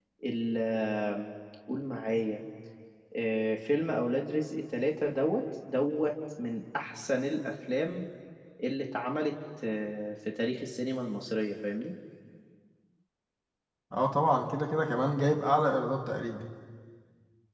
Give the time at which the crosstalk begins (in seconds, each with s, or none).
none